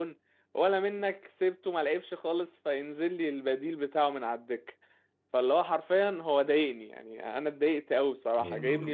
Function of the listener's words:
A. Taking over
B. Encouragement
A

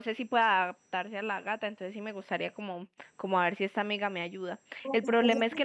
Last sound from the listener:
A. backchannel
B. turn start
A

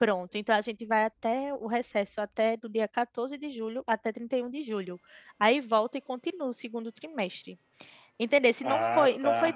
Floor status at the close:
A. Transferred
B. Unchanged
B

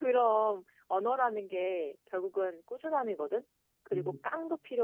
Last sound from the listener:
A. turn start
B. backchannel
B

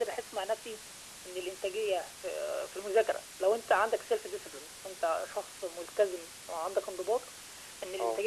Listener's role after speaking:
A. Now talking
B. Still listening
B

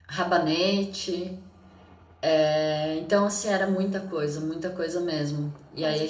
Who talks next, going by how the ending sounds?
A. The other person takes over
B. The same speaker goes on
B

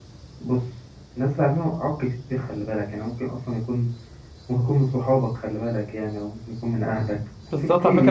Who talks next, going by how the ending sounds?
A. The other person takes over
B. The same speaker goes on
A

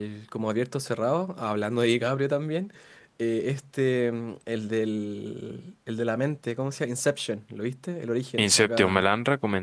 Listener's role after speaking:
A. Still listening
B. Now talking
B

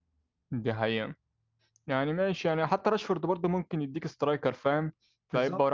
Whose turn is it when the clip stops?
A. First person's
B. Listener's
A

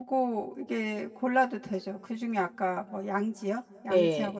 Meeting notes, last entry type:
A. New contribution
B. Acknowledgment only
A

